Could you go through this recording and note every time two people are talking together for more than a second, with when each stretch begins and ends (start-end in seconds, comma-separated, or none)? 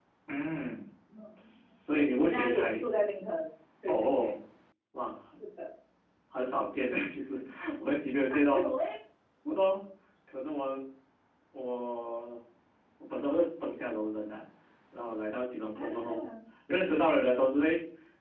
1.4-2.8